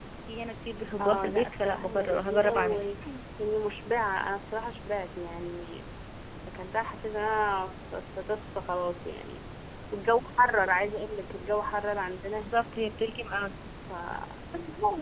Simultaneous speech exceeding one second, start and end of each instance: 1.0-3.0

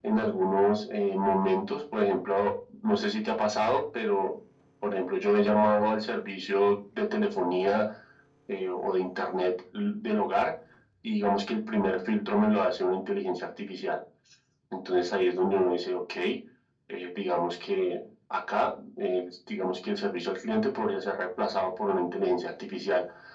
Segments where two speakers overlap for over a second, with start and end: none

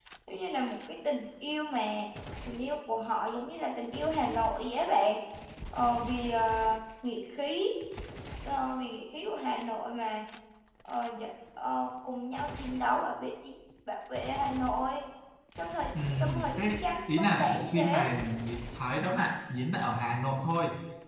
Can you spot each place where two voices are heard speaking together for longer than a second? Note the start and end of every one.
16.2-18.1

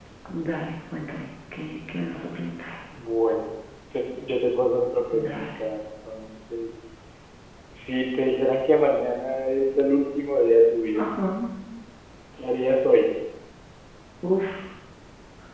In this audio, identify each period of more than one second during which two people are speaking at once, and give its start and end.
none

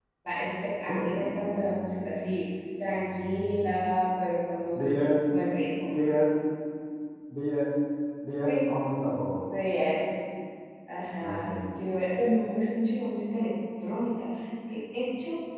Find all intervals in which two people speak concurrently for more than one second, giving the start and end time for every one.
none

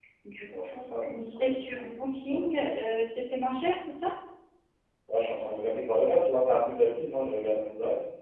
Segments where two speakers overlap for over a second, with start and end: 0.6-2.4

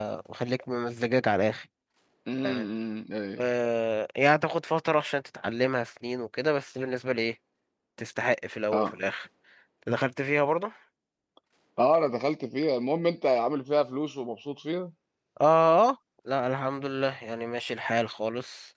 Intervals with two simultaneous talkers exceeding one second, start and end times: none

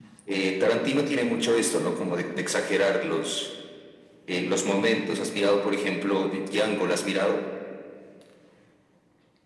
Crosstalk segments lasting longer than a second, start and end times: none

